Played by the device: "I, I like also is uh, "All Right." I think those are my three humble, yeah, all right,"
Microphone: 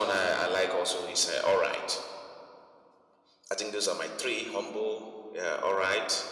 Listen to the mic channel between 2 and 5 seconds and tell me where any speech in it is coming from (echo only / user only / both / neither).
echo only